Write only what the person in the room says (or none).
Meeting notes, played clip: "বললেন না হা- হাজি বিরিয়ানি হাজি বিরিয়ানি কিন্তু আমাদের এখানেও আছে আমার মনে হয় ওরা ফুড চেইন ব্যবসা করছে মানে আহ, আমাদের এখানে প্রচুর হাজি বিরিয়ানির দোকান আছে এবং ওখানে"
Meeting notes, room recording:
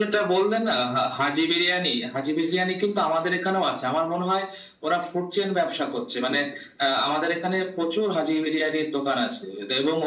none